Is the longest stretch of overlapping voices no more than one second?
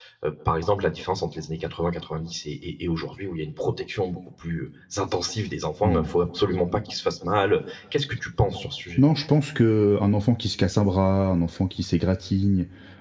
Yes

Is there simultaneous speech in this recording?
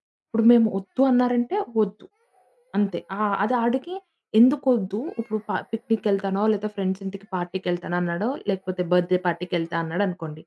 No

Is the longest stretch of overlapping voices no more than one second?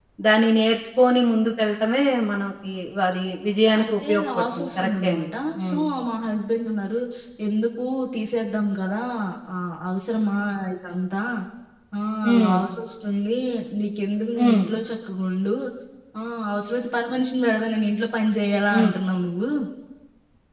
No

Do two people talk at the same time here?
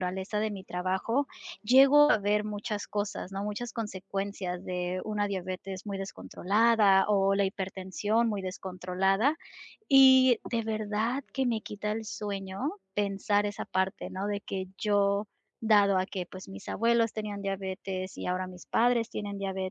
No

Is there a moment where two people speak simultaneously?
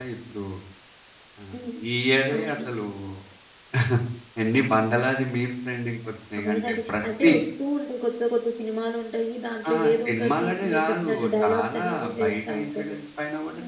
Yes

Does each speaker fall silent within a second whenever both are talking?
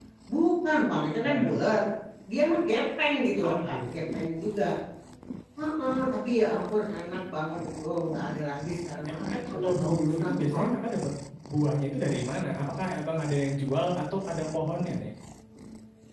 No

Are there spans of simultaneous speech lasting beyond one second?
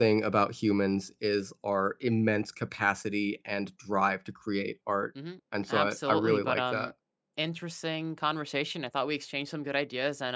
Yes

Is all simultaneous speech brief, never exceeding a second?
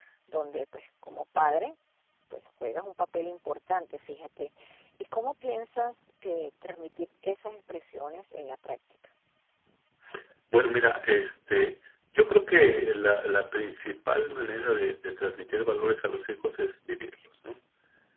Yes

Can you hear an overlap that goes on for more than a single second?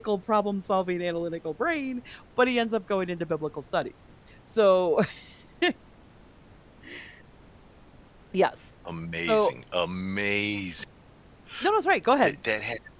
No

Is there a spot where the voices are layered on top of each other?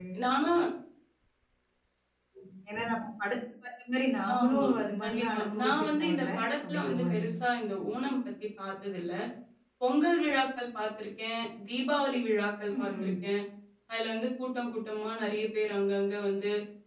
Yes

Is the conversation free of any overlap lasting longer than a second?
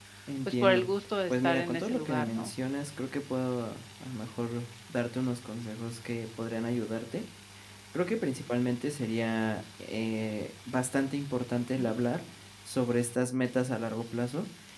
No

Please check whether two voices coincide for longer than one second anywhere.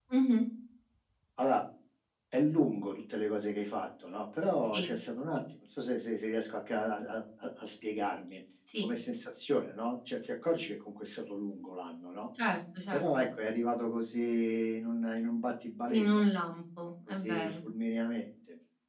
No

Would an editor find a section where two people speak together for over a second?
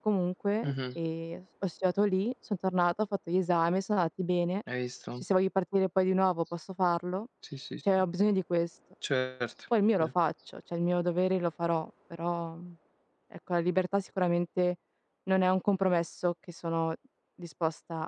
No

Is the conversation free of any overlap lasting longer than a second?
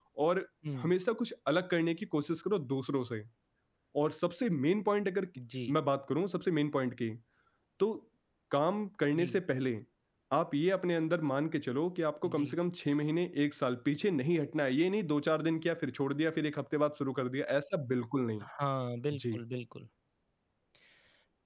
Yes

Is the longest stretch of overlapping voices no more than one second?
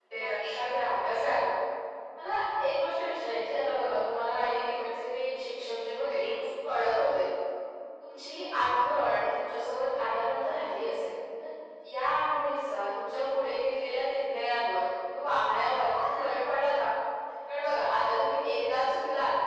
Yes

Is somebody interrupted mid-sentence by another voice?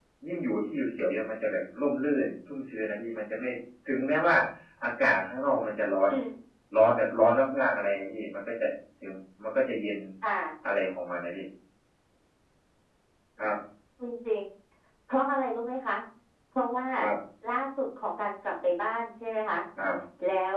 No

